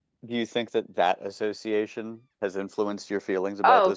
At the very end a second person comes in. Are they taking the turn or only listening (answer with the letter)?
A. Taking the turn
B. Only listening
A